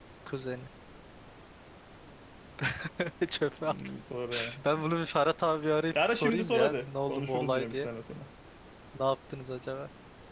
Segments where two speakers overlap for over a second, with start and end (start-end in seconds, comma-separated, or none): 6.0-7.9